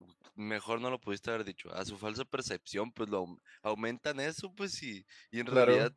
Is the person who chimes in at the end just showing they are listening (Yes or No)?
Yes